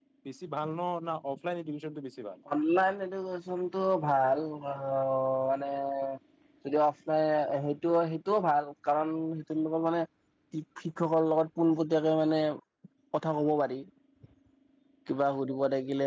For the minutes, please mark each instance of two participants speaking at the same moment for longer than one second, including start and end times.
none

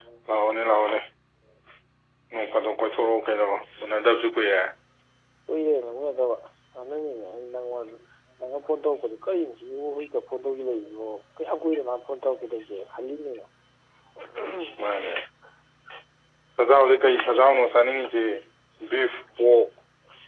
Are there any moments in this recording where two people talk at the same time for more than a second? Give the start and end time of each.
none

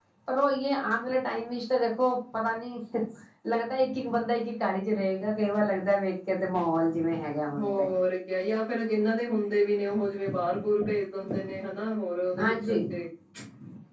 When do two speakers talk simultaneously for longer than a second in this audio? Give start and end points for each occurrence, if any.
none

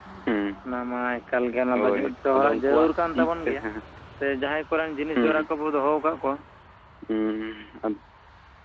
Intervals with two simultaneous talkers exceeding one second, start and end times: 1.8-3.6

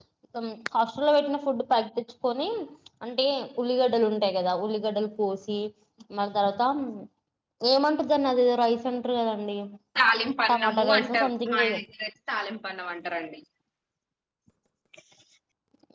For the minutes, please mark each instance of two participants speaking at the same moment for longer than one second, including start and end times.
10.5-11.8

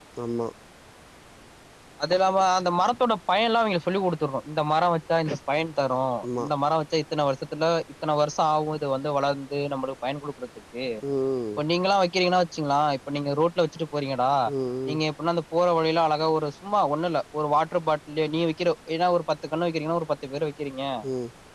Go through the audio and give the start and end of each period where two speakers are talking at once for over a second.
none

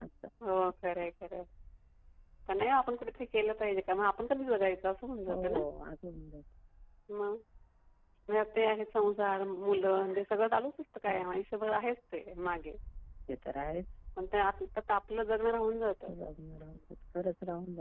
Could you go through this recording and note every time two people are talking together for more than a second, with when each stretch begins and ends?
none

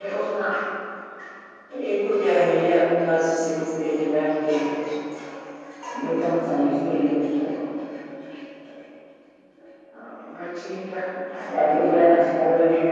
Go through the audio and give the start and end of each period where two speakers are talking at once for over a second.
none

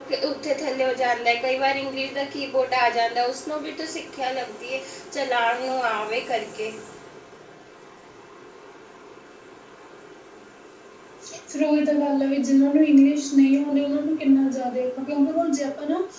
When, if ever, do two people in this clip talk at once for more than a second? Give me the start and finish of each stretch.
none

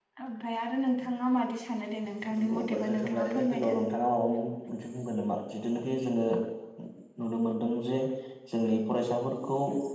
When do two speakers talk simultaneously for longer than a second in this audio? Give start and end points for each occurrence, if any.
2.4-3.8

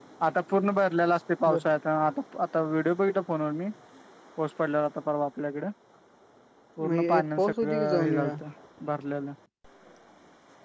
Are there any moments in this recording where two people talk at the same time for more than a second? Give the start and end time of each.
6.9-8.3

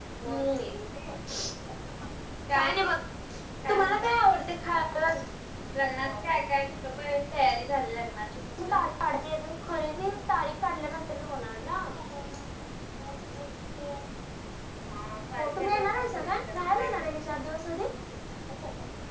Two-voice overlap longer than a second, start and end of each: 15.4-17.0

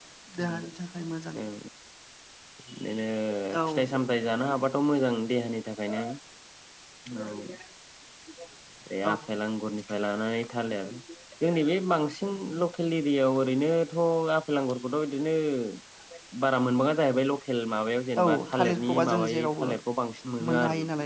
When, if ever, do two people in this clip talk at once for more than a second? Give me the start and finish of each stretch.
18.2-19.7

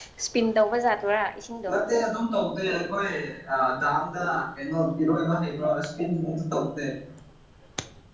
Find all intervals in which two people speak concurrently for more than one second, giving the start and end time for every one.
none

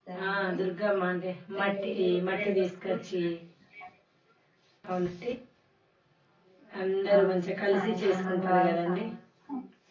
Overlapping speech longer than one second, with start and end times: 1.6-3.2, 7.2-9.0

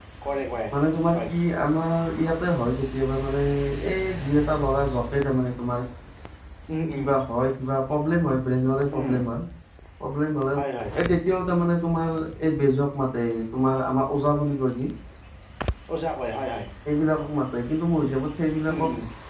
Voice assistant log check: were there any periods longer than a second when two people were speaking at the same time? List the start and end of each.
none

